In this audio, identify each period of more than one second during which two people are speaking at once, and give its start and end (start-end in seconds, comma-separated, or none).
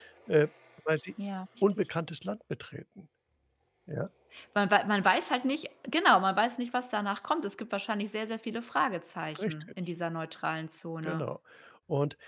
none